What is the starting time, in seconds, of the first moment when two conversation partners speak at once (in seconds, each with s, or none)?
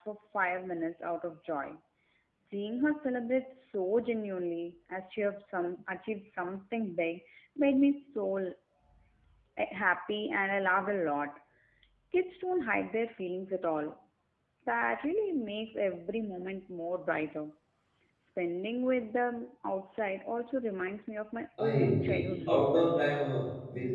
21.6 s